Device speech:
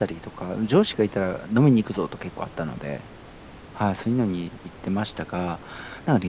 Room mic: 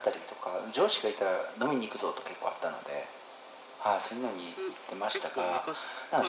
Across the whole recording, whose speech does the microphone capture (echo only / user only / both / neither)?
both